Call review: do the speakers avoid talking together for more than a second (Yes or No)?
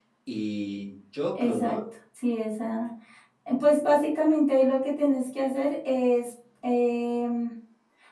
Yes